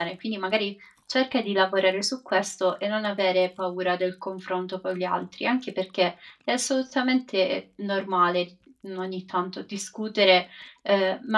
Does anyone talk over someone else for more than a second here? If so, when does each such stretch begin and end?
none

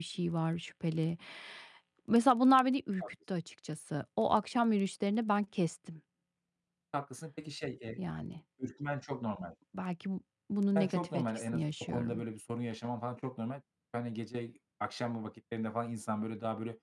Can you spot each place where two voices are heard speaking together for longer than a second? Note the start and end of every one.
10.9-12.2

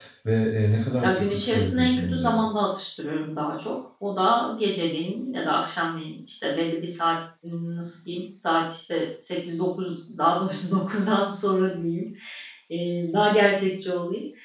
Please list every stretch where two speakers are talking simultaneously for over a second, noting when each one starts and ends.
1.0-2.4

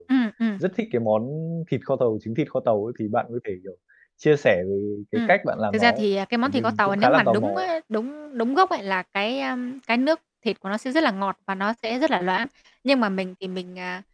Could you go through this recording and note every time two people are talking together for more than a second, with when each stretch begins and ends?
6.4-7.7

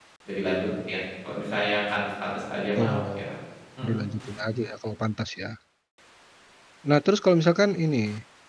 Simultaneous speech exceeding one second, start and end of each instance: none

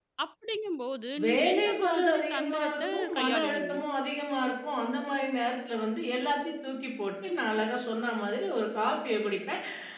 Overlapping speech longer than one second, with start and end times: 1.2-3.7

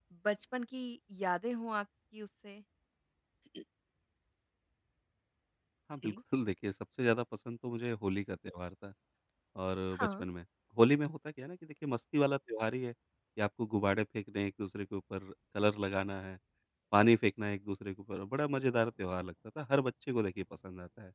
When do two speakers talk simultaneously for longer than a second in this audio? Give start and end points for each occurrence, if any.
none

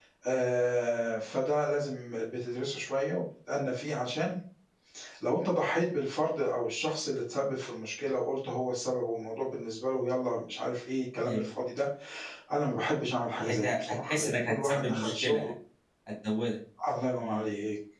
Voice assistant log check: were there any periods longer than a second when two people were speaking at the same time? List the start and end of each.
13.5-15.5

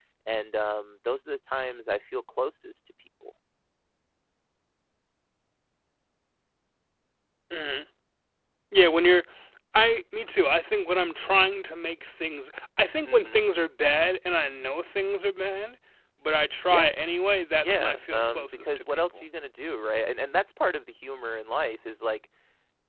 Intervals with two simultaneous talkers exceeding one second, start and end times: 17.6-19.2

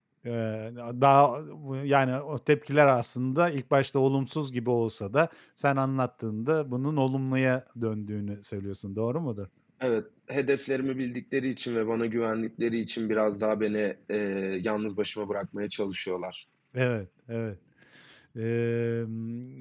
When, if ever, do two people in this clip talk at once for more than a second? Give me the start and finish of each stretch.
none

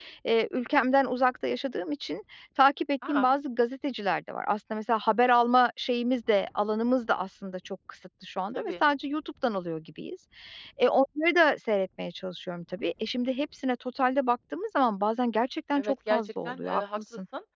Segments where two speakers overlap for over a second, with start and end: 15.8-17.0

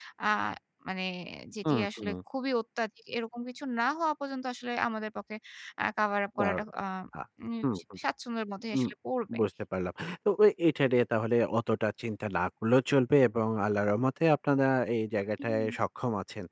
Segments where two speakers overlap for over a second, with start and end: none

